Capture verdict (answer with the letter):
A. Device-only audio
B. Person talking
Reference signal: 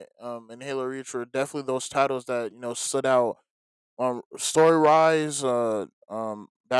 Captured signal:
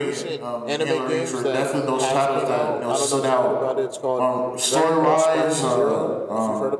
B